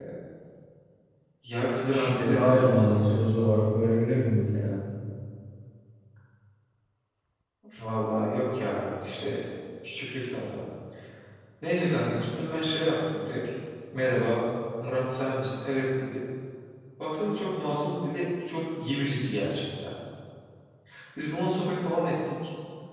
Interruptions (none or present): present